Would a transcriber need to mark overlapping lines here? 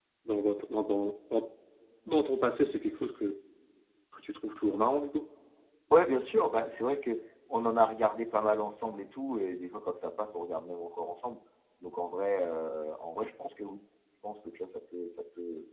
No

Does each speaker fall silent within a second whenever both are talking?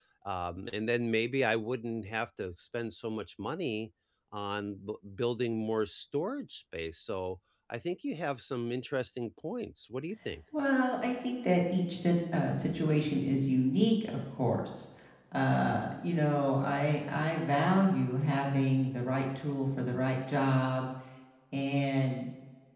Yes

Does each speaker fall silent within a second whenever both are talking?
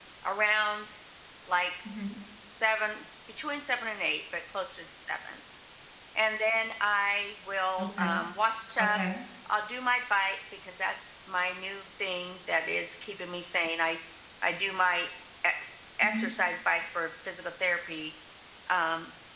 Yes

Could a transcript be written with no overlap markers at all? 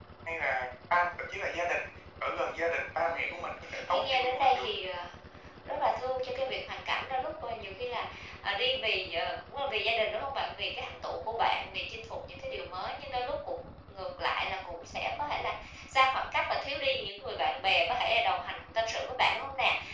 No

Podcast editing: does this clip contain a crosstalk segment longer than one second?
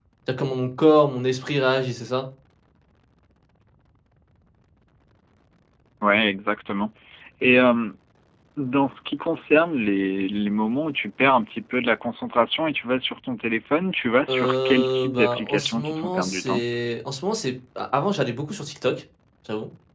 Yes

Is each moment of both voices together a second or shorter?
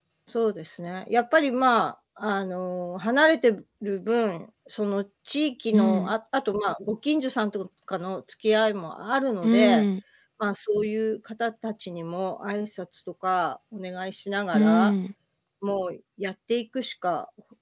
Yes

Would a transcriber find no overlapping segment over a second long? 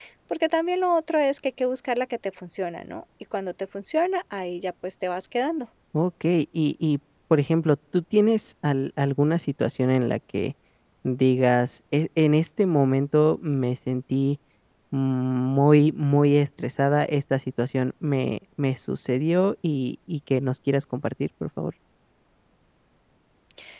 Yes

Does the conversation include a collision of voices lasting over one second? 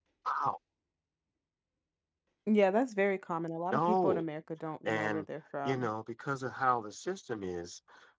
No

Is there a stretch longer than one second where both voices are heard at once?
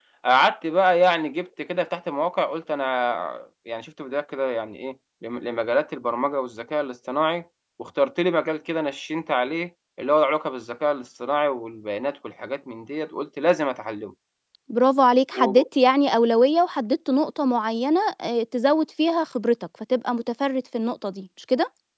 No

